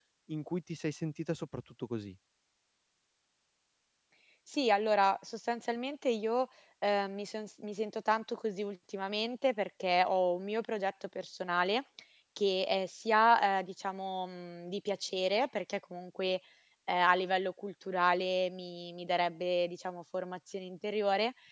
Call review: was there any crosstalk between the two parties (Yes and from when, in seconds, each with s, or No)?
No